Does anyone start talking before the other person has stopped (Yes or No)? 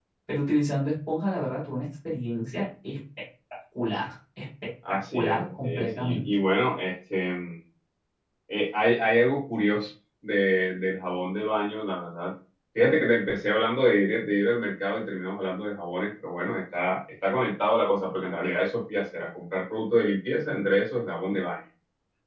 Yes